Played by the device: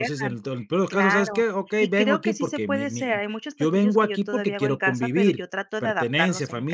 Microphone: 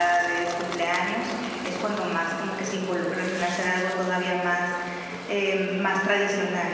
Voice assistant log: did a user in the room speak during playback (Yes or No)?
Yes